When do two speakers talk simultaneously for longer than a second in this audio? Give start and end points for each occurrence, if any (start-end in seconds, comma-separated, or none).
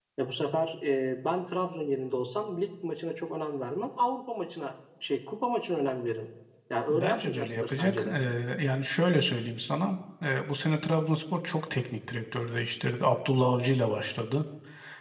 6.9-8.2